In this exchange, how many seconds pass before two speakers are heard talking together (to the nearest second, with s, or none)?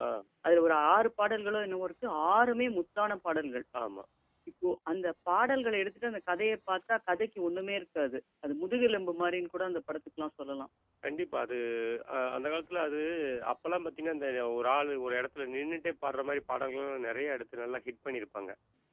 none